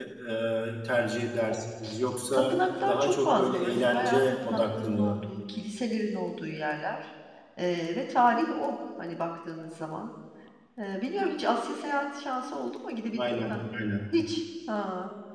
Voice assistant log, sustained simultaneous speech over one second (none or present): present